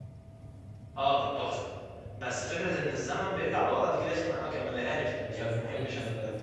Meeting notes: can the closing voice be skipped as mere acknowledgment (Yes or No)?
No